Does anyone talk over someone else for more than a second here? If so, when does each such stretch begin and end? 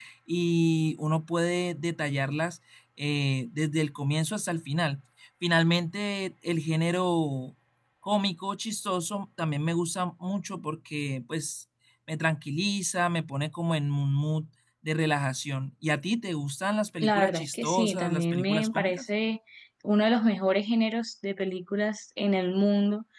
17.0-19.0

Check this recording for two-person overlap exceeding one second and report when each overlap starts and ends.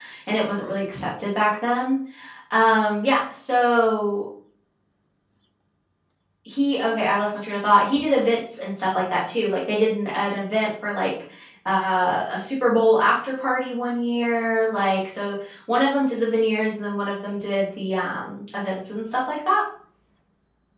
none

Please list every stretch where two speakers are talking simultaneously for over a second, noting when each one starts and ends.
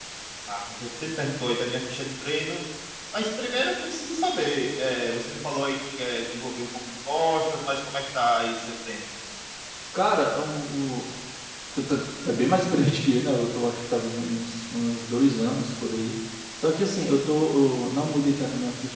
none

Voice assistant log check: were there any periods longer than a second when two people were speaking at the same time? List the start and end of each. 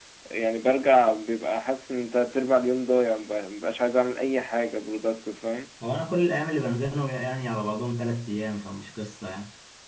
none

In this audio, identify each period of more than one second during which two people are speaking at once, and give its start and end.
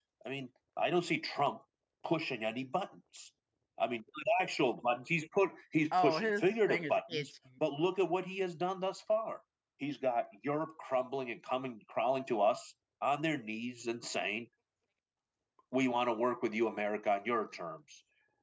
6.0-7.2

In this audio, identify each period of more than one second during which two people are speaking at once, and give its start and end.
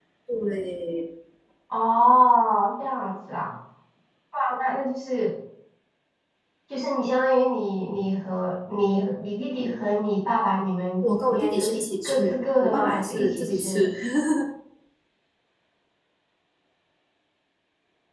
11.0-13.9

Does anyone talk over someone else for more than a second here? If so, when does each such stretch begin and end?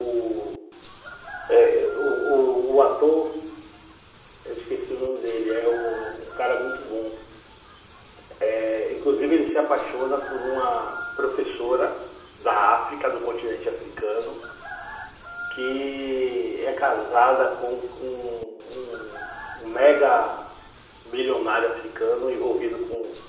none

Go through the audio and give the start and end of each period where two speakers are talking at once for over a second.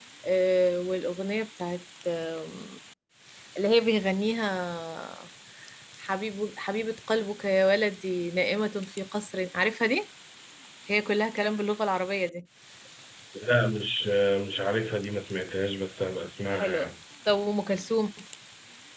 none

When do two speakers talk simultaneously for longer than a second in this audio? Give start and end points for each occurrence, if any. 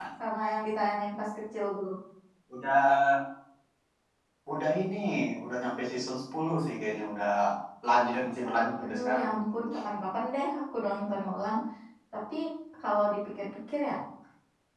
none

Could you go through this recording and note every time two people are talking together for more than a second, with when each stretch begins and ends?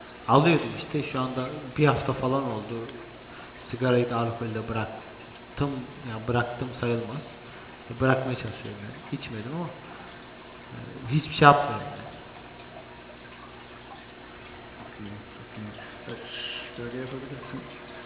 none

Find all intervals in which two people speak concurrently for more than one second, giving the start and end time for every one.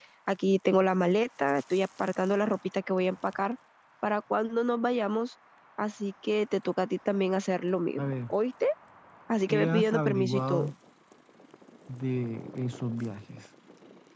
9.5-10.7

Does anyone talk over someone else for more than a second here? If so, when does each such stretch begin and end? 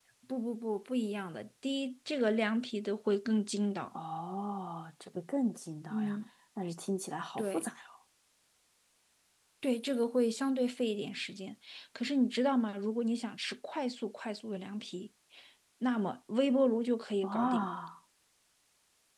none

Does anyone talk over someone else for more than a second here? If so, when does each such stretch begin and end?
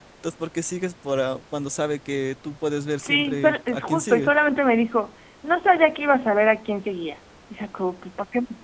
3.0-4.3

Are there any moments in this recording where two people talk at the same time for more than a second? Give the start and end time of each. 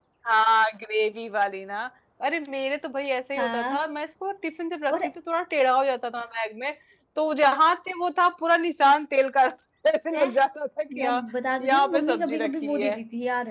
11.6-13.0

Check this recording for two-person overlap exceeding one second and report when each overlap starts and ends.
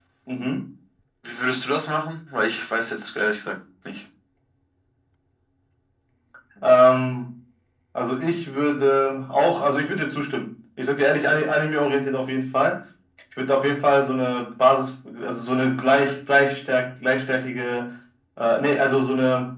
none

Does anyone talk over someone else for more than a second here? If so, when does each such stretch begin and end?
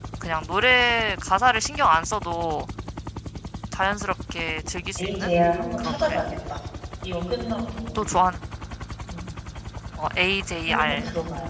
none

